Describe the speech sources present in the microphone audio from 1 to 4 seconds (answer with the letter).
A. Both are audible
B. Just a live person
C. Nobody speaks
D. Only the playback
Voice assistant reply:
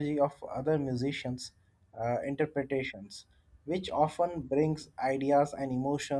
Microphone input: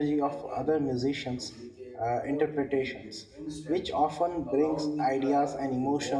A